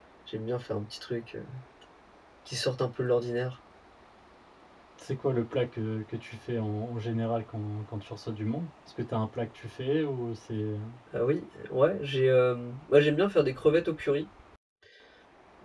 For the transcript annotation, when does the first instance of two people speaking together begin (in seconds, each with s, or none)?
none